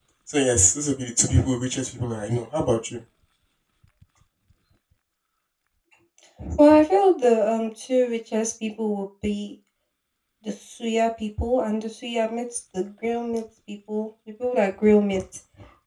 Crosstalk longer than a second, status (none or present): none